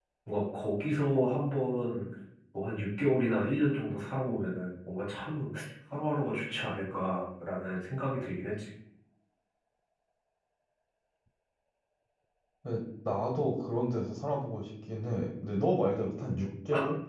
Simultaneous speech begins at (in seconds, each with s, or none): none